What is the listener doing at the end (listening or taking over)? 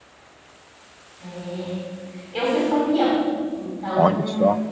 listening